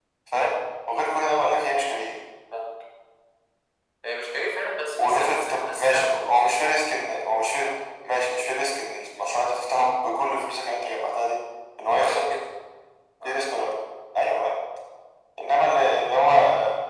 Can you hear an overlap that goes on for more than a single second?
Yes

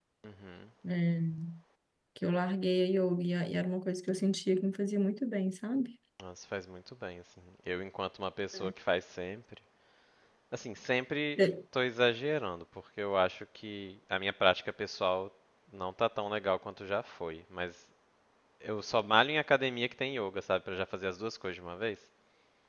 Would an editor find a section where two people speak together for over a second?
No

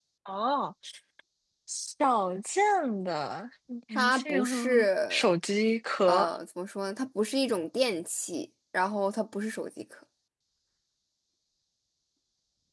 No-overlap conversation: No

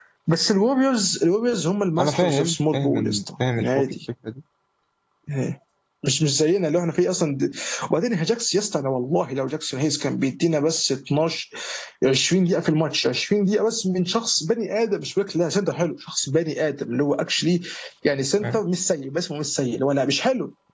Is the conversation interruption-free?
No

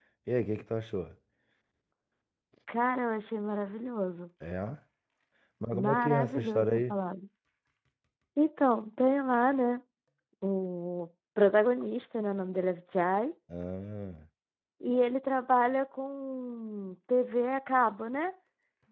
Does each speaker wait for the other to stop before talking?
No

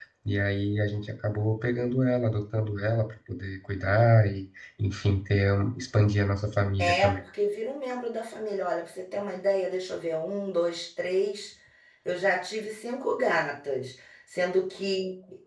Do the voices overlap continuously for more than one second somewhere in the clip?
No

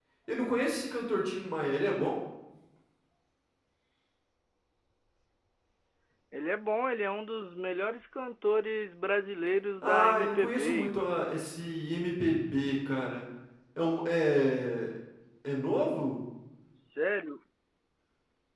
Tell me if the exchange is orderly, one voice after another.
No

